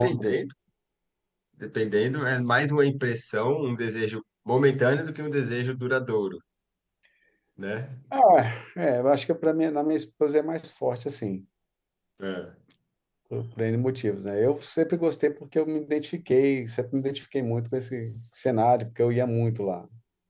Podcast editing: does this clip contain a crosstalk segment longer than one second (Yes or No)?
No